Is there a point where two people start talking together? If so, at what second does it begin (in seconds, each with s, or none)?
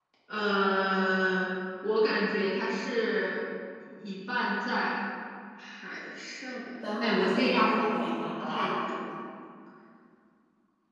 6.8 s